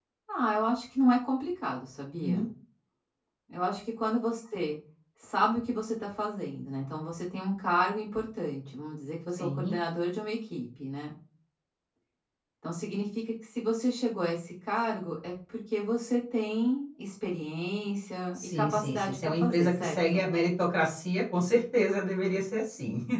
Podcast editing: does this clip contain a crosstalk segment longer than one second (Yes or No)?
Yes